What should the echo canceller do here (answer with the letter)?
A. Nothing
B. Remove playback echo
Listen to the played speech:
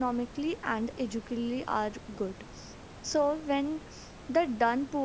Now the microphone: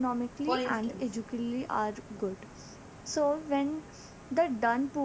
B